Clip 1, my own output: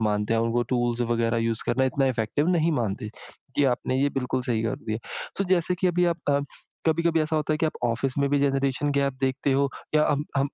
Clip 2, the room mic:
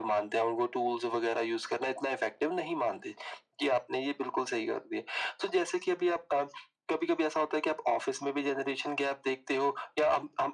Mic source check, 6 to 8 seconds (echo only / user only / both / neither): echo only